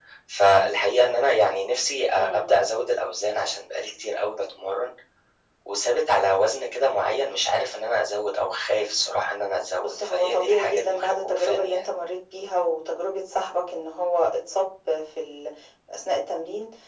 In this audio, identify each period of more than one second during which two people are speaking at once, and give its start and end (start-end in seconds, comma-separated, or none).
9.8-11.8